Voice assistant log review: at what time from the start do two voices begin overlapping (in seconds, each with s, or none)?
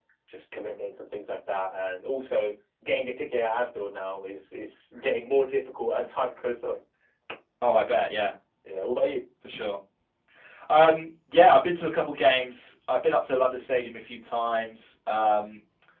none